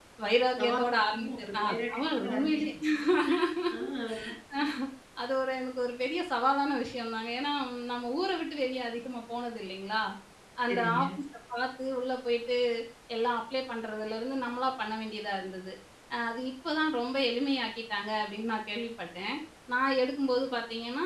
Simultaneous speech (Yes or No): Yes